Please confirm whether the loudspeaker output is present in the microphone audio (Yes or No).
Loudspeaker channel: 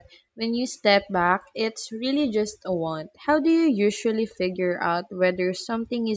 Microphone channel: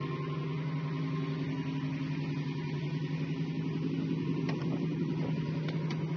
No